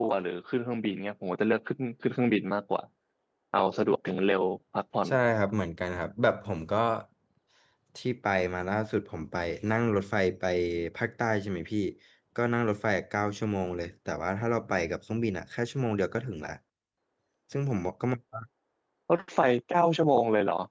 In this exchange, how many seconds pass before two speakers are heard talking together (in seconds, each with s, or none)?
none